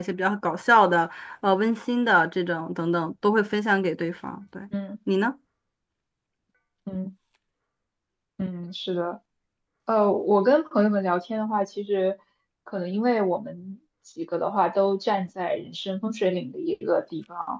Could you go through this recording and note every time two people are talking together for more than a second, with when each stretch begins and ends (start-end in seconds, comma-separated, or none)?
none